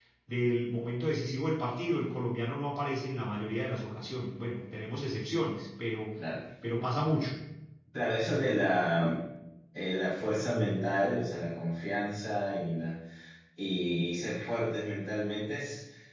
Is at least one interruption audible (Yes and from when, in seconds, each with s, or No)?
No